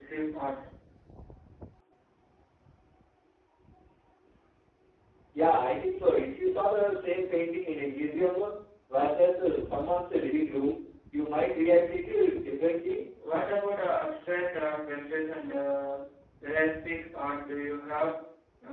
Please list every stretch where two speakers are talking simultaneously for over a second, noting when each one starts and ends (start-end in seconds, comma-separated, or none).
none